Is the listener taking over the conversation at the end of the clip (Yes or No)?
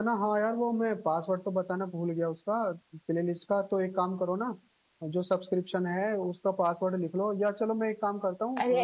Yes